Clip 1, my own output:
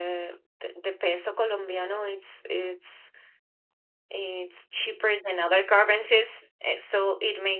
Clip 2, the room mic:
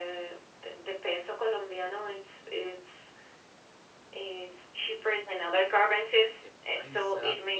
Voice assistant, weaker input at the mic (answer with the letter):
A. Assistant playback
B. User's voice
B